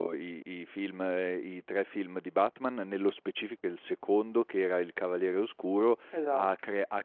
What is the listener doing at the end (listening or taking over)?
listening